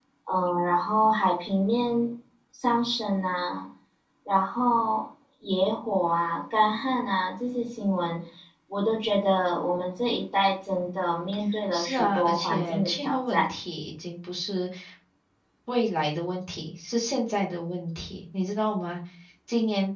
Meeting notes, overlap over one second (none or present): present